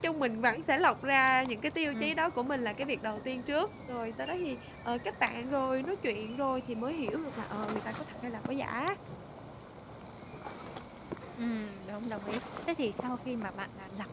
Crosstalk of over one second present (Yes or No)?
No